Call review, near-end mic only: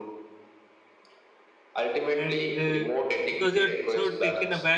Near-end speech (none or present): present